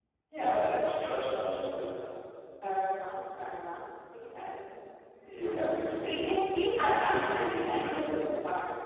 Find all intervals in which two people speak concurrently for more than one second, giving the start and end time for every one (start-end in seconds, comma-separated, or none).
6.7-8.2